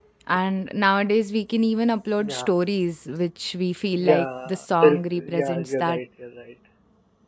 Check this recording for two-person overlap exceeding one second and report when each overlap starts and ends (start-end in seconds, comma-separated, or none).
4.1-6.0